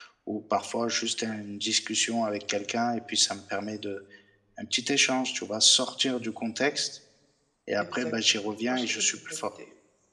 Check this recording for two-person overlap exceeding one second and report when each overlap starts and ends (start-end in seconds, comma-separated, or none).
7.9-9.5